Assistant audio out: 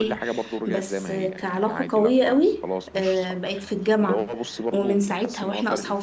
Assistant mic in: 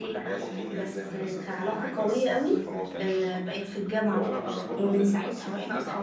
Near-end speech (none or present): present